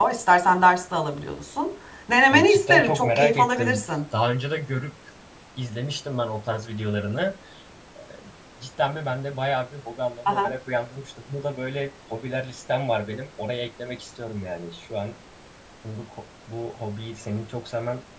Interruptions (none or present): present